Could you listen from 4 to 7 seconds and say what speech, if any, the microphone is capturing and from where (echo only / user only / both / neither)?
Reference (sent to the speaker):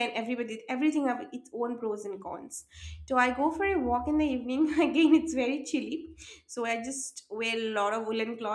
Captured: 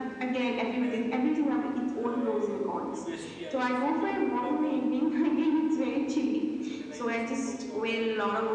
both